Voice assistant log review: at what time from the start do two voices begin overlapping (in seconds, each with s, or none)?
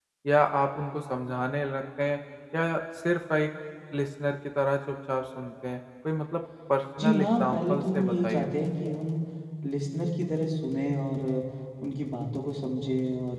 7.0 s